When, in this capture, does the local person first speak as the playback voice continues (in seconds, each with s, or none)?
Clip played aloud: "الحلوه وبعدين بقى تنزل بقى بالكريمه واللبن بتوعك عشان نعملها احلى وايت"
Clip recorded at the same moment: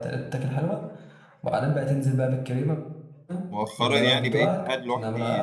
3.5 s